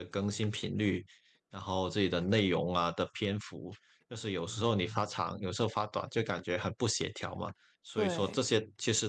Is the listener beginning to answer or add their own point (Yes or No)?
No